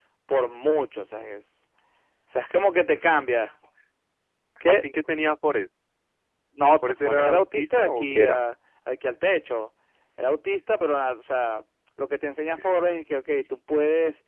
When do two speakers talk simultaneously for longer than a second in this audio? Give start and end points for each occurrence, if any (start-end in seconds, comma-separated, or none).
6.8-8.4